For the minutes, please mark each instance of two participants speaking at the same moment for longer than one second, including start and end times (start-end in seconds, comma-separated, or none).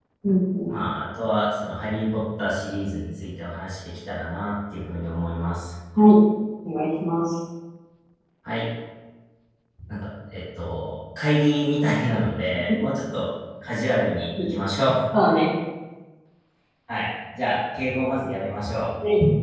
none